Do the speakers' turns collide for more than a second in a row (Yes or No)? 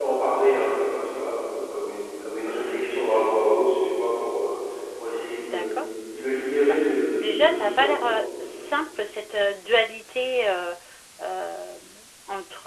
Yes